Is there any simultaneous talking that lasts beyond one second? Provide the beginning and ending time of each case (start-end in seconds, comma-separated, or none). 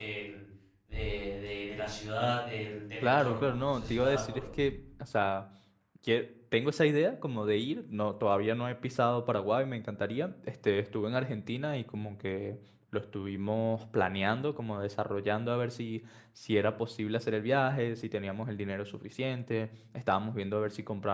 3.0-4.4